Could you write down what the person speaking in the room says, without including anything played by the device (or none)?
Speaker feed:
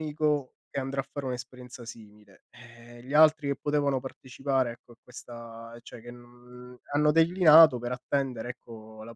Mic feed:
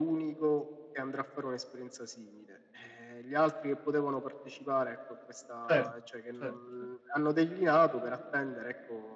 certo, certo, cer